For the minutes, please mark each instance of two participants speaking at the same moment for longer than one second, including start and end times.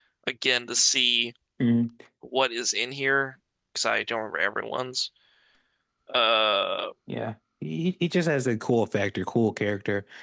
none

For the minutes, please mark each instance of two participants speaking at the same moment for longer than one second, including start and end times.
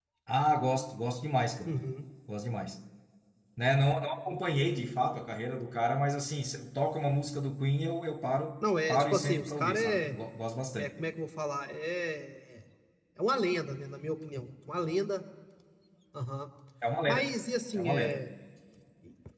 8.9-10.2

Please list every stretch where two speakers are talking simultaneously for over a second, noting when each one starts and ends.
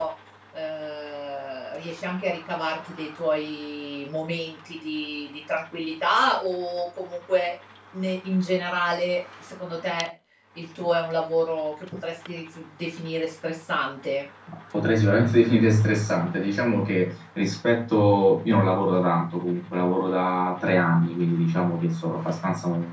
none

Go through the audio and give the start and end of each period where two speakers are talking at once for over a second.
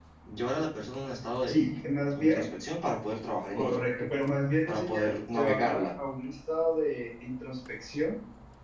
4.7-5.9

